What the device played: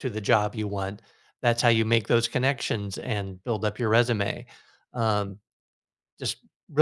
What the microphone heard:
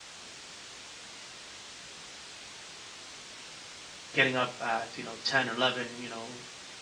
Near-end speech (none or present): present